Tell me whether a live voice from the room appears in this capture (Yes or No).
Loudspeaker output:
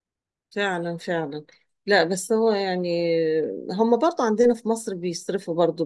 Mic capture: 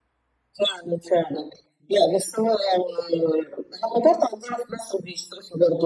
No